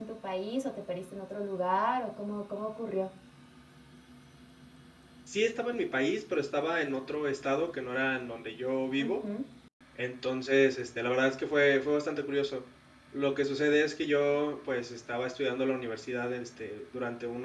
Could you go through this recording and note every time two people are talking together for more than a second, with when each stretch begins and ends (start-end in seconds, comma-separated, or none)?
none